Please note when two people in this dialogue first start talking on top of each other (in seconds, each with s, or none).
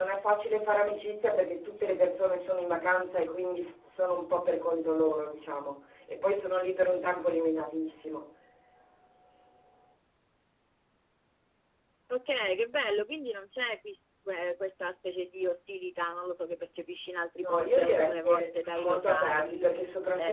17.4 s